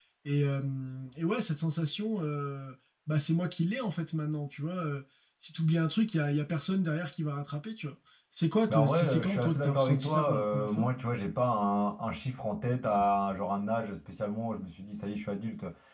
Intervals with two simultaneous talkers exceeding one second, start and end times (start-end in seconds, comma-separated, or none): 8.7-10.9